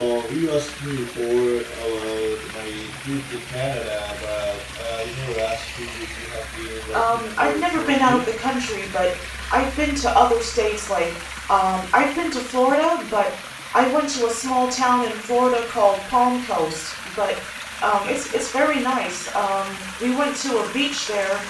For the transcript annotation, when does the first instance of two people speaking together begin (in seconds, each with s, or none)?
6.9 s